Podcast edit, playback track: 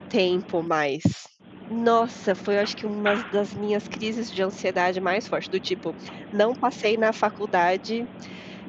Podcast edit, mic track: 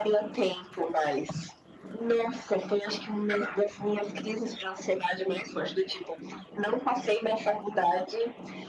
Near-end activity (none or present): none